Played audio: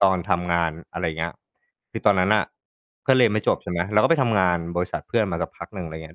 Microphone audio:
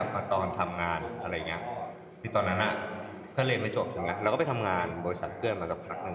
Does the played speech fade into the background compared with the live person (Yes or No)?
No